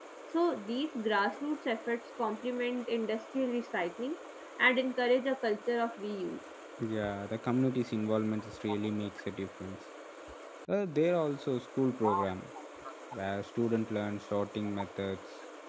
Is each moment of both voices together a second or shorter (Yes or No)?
Yes